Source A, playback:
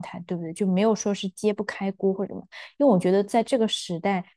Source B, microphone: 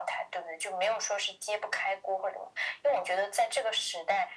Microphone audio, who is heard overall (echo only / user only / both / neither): echo only